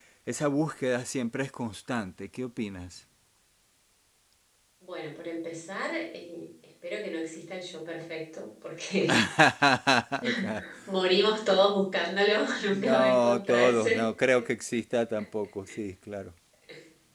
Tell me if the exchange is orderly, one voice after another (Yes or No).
No